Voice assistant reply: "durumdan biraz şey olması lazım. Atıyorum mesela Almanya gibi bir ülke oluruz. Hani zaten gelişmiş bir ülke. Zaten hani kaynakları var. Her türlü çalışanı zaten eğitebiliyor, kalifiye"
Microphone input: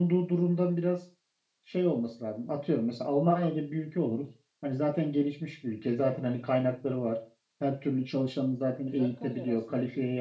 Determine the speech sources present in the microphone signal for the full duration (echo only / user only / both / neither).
both